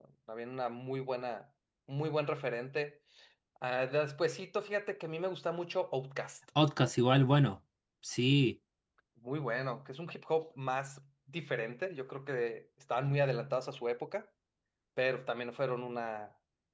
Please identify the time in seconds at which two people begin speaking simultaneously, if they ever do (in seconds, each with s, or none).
none